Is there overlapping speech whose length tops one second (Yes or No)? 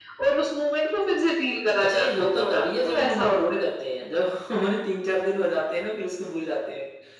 Yes